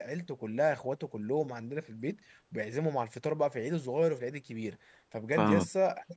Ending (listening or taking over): listening